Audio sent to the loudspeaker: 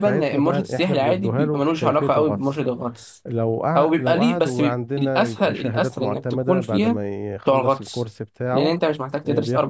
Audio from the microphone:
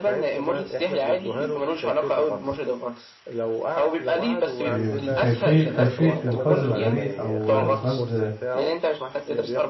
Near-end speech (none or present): present